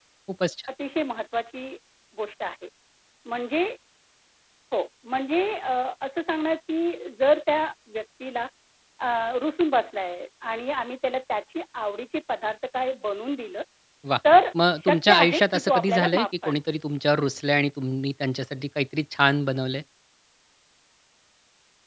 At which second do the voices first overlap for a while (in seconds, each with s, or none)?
14.9 s